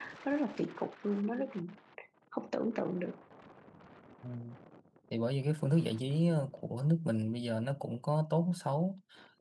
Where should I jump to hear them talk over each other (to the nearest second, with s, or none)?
none